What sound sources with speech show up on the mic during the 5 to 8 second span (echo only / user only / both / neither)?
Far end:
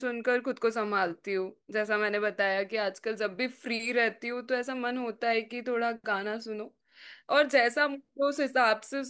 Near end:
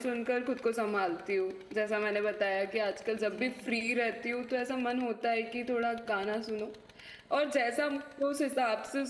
echo only